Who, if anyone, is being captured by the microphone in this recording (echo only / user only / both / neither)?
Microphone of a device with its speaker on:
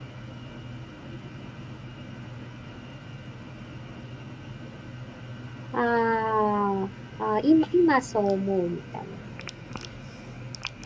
user only